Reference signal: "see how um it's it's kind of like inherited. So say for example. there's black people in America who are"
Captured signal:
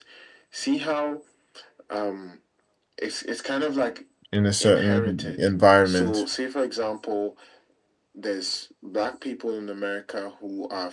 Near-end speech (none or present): present